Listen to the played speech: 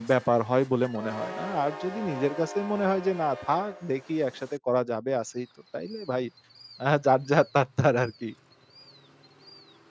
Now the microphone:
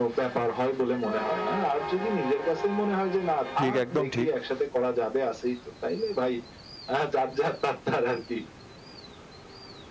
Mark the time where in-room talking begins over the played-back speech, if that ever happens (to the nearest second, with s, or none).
4 s